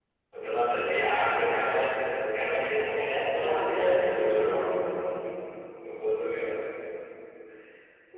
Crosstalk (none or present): present